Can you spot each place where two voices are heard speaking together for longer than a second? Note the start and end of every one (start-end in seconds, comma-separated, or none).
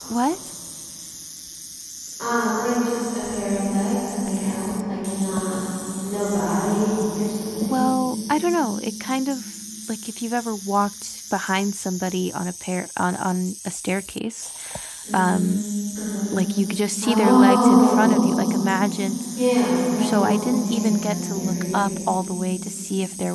17.0-18.2, 20.0-21.9